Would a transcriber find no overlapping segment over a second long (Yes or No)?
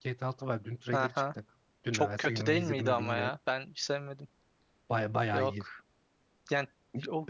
No